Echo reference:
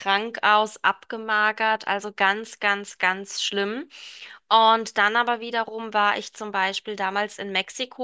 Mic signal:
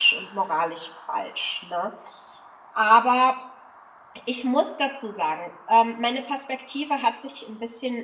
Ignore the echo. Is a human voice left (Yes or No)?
Yes